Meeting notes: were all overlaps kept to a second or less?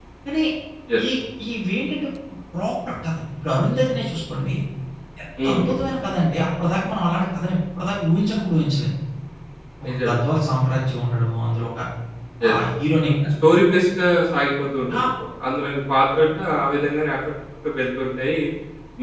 Yes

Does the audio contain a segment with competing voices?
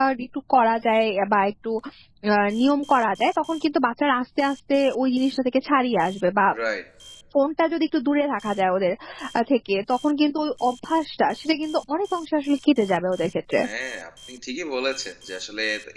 No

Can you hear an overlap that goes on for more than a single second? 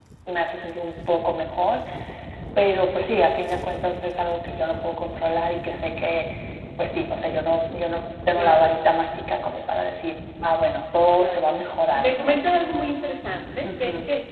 No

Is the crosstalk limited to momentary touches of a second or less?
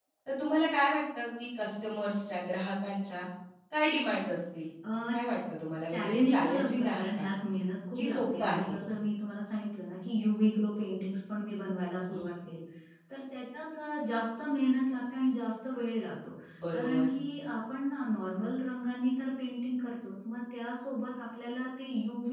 No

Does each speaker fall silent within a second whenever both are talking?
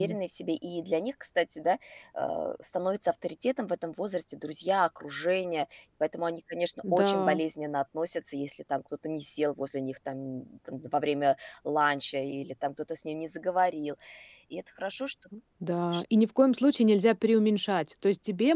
Yes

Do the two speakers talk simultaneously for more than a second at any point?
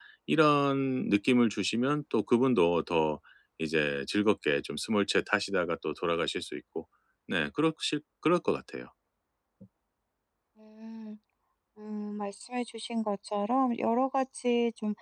No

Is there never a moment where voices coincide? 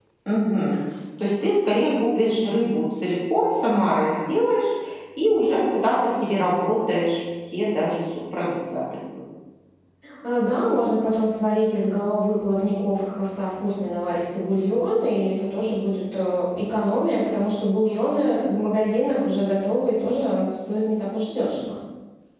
Yes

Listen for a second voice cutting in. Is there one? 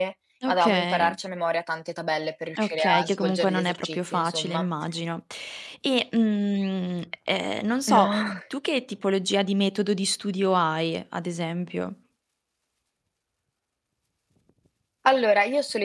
Yes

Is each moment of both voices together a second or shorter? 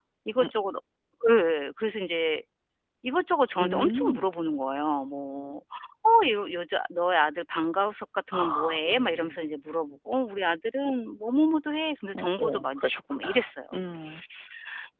No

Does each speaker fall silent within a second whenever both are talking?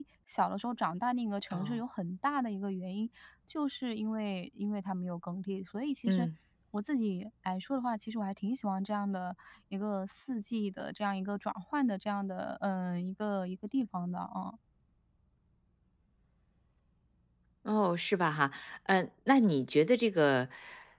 Yes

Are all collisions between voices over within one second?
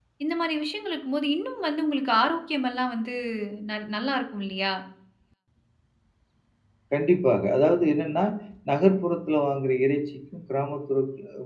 Yes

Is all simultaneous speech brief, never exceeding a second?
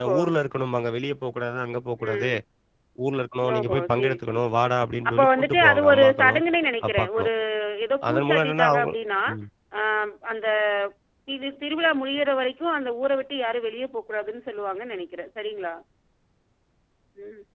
No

